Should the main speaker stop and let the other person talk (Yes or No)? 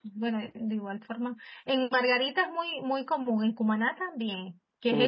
Yes